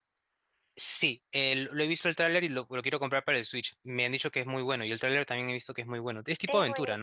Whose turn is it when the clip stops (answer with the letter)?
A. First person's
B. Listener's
B